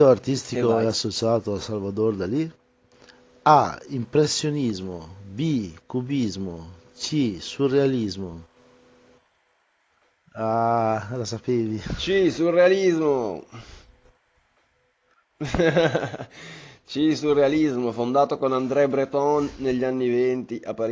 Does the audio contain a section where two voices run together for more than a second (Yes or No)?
No